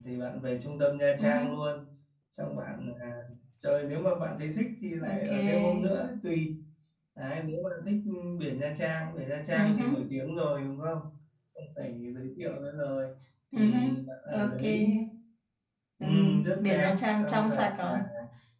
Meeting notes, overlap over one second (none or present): present